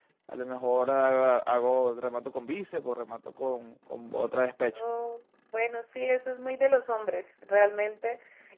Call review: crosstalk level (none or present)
none